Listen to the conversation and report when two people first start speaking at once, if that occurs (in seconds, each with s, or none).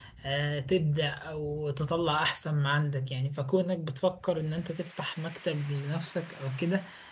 none